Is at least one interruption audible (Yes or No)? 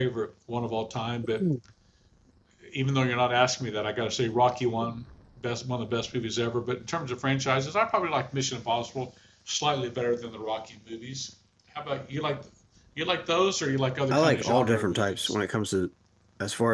Yes